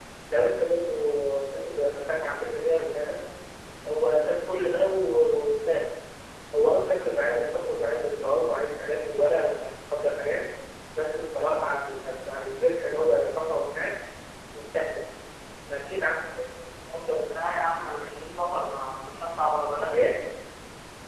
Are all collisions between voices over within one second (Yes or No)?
Yes